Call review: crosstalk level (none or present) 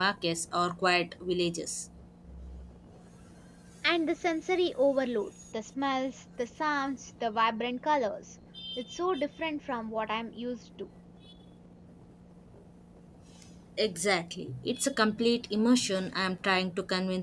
none